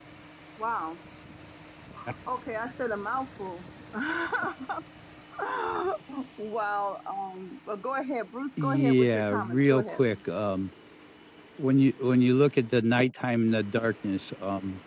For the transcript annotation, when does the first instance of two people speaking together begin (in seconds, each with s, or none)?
8.6 s